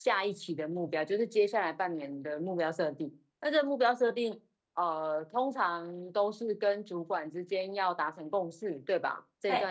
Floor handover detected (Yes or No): No